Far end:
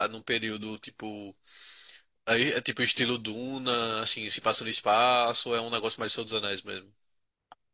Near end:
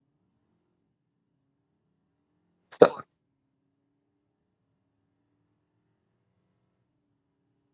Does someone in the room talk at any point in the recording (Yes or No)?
Yes